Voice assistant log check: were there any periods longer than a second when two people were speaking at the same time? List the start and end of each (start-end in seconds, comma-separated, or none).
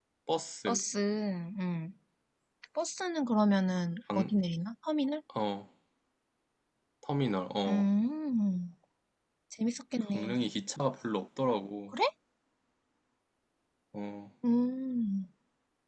none